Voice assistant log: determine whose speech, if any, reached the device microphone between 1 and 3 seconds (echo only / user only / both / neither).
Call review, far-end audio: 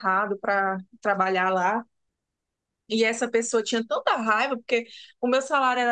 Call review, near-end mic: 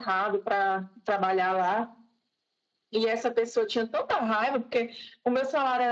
echo only